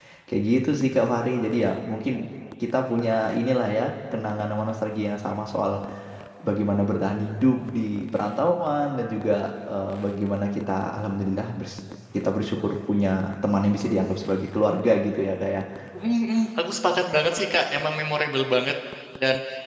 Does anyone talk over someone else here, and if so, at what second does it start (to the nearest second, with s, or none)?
none